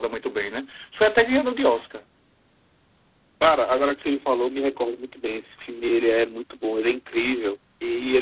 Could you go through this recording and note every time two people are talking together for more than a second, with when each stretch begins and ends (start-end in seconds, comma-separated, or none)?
none